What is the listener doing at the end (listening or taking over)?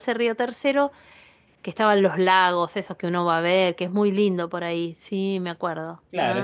taking over